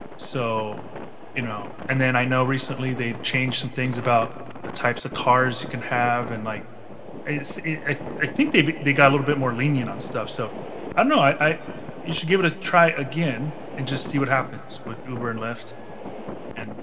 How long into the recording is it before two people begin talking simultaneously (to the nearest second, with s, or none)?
none